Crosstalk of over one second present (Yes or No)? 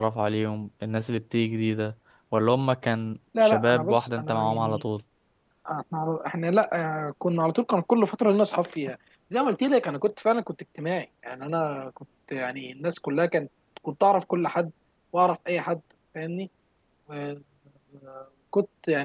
Yes